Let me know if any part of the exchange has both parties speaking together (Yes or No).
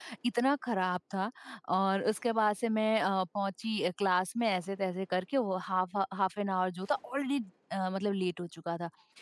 No